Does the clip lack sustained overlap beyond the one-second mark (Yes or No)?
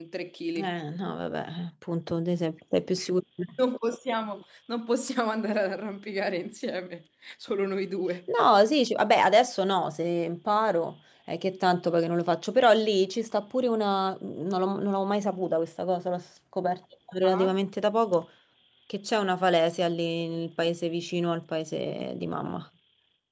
Yes